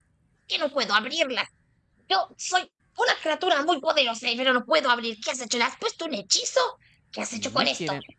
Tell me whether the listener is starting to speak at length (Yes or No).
Yes